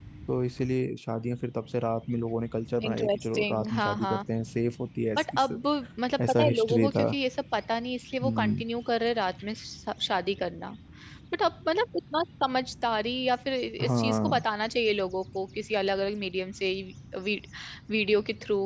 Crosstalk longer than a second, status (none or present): present